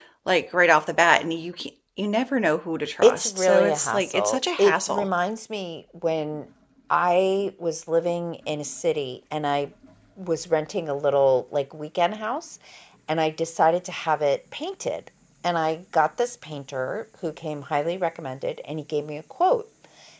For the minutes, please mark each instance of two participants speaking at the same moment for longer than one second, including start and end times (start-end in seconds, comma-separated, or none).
3.0-5.1